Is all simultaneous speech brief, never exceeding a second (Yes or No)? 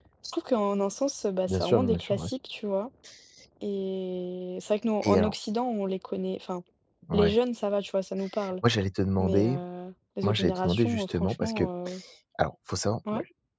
No